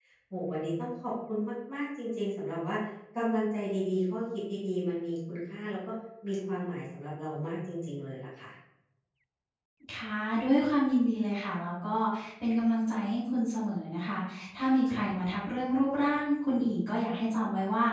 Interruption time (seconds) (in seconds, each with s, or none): none